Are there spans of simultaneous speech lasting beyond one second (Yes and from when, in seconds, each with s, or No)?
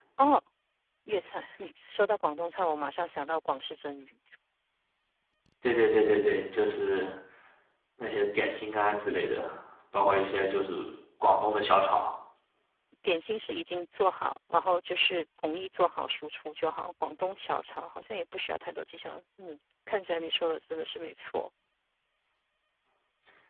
No